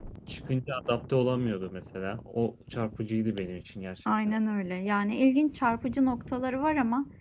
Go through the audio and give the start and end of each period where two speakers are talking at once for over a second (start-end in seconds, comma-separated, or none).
none